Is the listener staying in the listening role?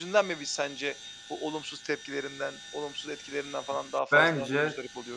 No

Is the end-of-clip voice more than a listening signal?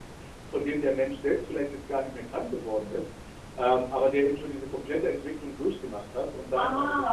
No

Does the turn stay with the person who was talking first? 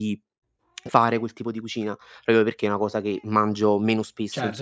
No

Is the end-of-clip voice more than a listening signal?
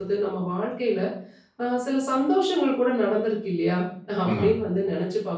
No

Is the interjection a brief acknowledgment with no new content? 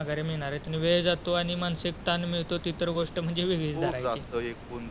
No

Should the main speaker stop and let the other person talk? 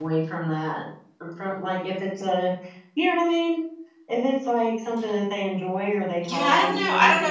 Yes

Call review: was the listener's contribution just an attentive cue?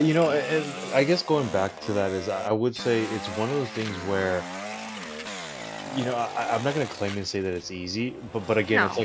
Yes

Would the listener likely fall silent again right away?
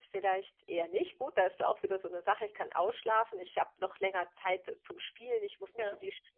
Yes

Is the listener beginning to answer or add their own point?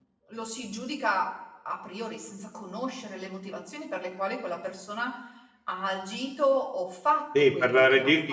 Yes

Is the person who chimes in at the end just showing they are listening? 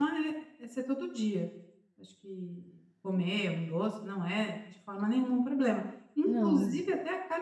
Yes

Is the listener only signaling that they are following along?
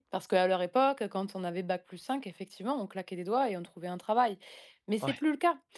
Yes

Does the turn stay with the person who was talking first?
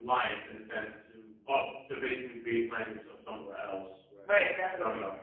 No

